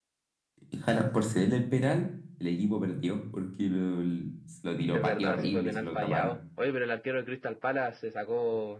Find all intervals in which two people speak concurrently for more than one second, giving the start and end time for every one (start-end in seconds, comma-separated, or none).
4.9-6.3